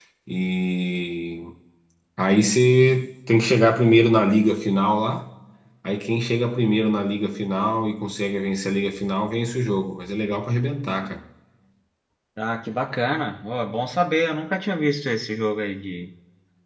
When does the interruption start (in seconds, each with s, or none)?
none